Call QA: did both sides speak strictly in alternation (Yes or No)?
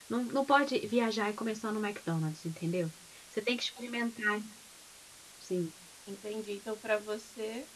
Yes